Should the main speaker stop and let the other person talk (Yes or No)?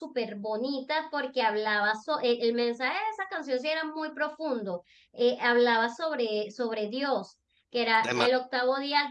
No